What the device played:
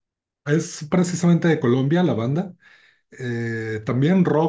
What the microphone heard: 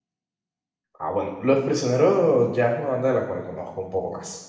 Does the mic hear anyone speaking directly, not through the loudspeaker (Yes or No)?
Yes